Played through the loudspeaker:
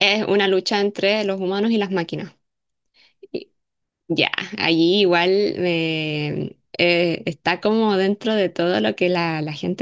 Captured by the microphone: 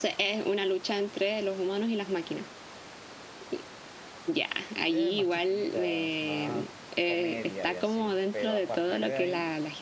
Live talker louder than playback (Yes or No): No